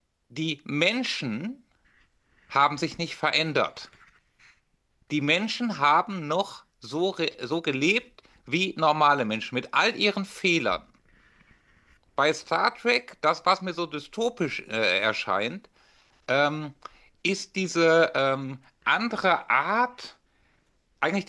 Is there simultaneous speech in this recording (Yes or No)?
No